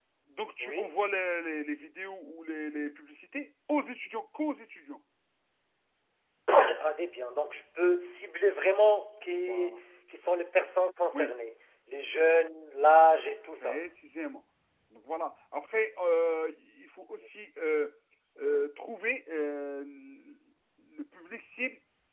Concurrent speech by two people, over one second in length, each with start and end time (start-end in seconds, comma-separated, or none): none